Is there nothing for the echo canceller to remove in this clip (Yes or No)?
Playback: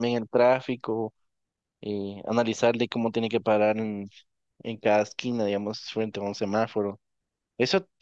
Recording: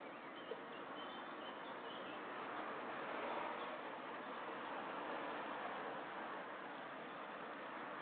Yes